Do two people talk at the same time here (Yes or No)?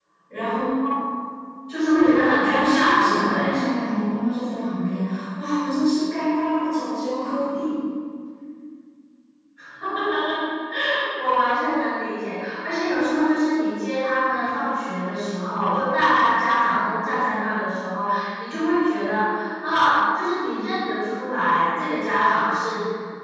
Yes